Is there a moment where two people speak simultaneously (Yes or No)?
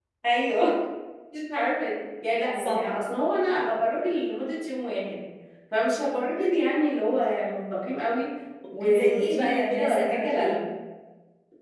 Yes